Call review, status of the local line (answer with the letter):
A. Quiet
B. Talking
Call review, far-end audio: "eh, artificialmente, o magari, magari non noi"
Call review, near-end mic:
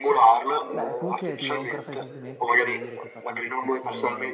B